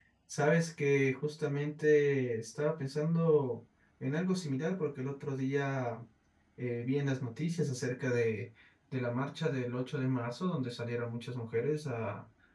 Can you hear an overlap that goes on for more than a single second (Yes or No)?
No